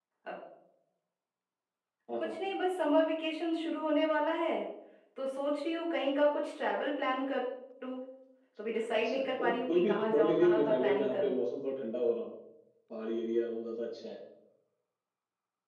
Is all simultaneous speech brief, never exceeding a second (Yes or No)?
No